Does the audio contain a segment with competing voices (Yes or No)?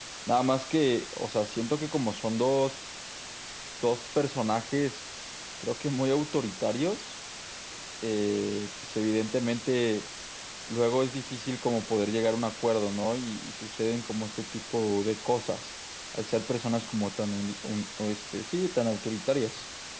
No